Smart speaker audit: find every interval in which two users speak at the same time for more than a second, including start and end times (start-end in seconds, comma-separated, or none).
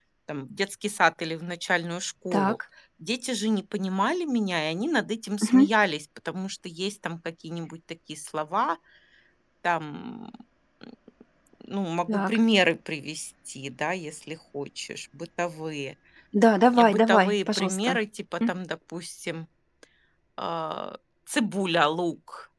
16.7-18.0